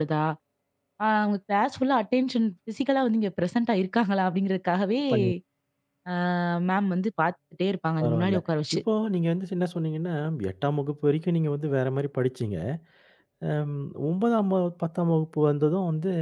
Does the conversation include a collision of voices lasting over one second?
No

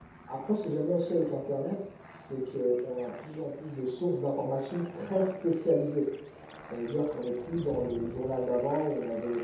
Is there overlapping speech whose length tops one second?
No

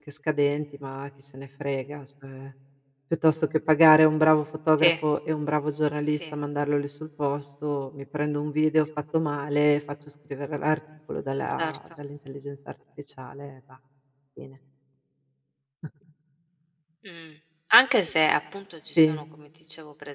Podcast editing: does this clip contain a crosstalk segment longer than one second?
No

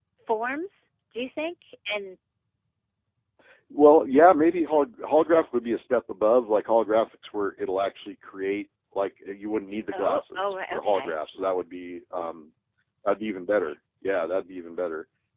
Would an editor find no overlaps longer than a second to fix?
No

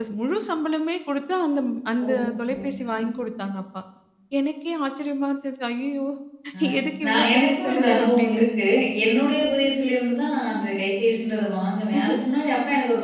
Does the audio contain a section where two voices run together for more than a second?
Yes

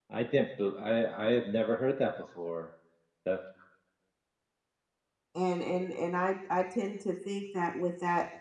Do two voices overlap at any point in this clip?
No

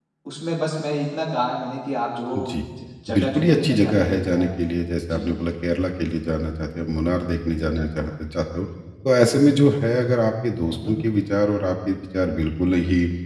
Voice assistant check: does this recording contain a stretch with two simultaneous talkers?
Yes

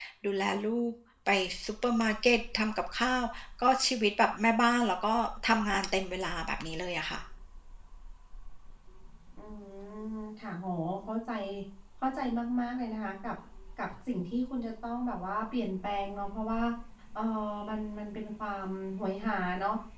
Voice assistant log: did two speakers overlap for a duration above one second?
No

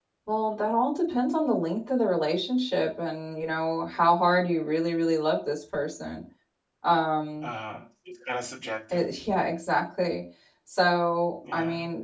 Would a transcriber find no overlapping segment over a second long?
Yes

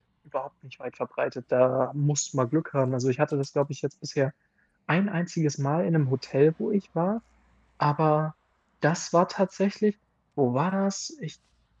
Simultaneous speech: No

